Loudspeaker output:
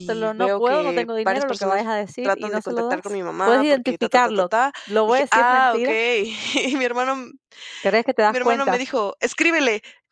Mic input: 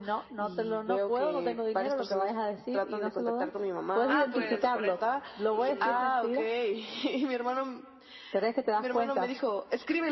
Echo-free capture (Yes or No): No